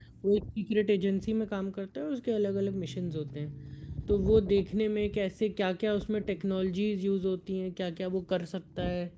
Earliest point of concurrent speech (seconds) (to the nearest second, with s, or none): none